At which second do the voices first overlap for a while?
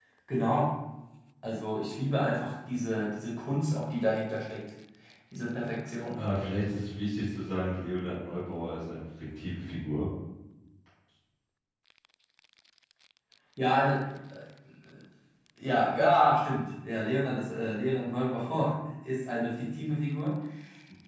none

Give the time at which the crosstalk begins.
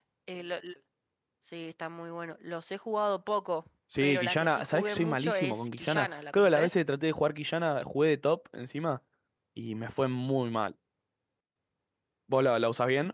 3.9 s

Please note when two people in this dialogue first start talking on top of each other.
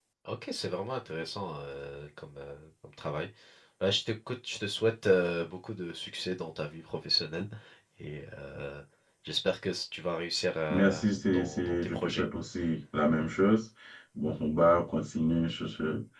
10.7 s

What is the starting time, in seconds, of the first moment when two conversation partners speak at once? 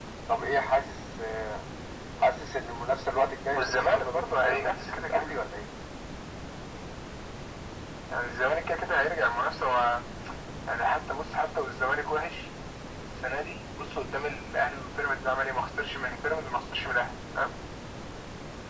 3.5 s

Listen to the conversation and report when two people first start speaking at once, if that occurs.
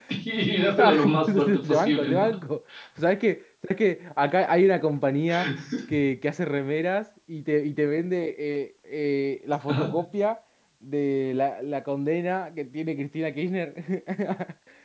0.8 s

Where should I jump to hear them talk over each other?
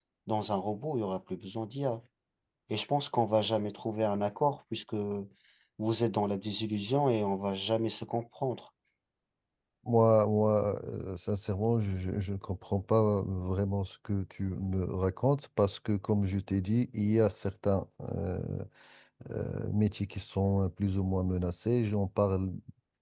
none

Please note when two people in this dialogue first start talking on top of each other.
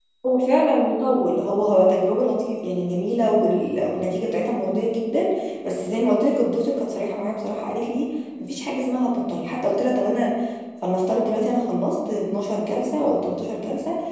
none

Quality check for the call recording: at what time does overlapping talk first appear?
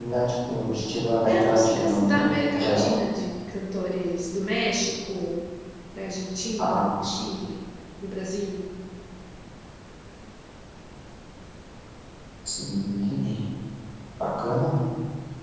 1.2 s

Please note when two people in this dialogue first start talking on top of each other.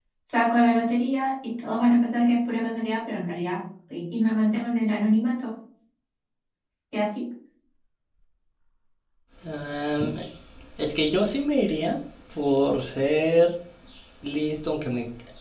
none

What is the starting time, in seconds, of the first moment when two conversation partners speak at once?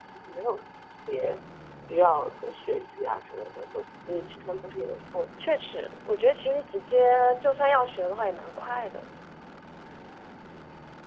none

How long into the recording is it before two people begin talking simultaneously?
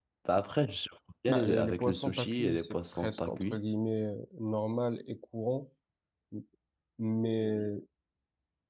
1.3 s

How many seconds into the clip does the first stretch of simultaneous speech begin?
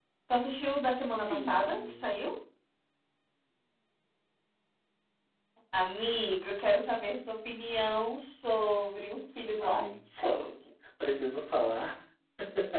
0.9 s

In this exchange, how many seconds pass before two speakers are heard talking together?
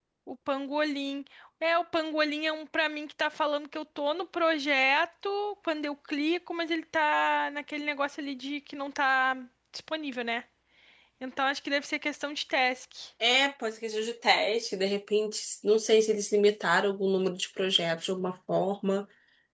none

